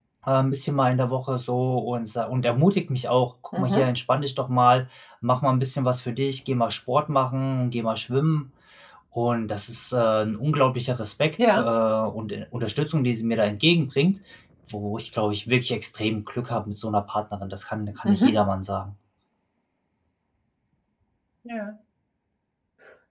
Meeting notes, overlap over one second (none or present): none